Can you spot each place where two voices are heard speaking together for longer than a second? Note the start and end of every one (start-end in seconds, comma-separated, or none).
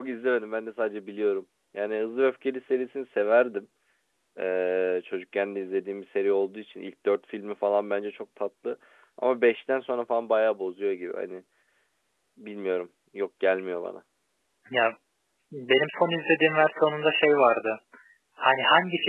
none